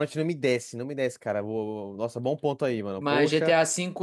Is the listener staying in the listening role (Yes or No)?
No